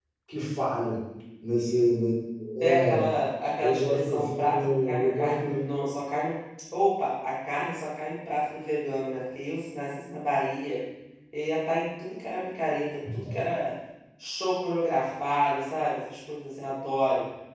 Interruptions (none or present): present